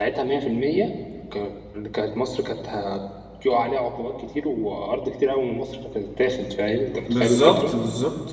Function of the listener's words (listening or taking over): taking over